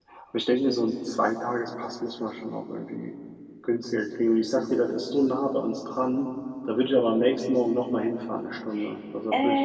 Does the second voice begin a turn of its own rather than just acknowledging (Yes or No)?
Yes